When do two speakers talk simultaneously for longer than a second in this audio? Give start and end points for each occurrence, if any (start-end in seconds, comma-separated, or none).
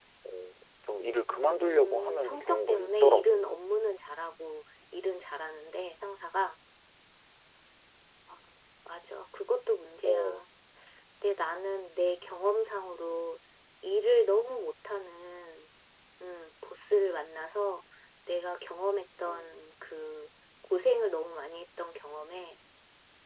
1.3-3.5